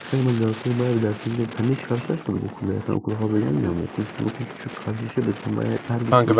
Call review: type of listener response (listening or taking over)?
taking over